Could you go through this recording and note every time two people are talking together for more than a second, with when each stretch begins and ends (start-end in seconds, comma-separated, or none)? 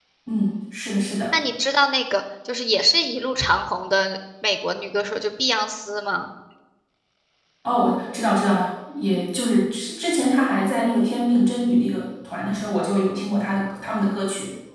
none